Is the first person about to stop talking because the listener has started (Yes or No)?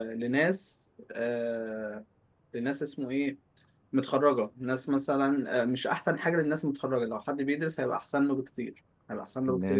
Yes